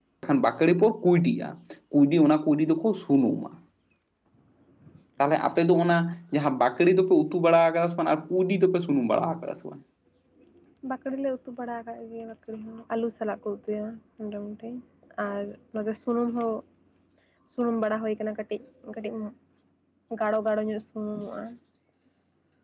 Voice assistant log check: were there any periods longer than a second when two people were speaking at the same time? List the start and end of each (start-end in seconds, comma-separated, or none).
none